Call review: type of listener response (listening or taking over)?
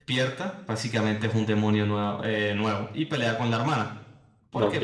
listening